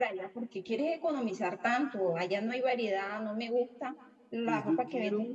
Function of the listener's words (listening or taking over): taking over